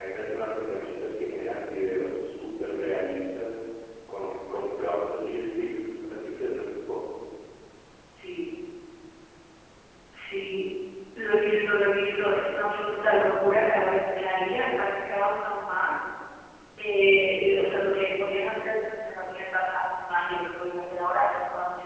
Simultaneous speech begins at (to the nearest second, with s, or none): none